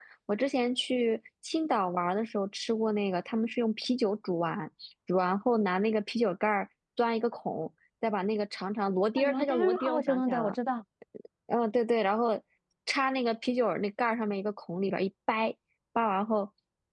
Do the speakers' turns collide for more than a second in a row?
Yes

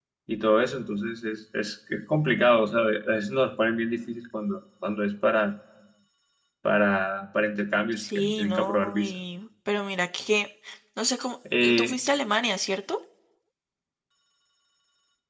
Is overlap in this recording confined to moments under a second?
No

